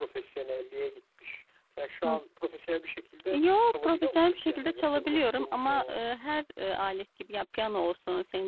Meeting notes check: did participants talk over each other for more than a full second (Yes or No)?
Yes